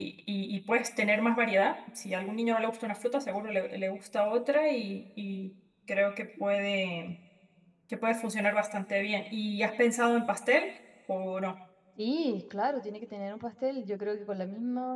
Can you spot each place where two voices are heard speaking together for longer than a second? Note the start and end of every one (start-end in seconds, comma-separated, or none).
none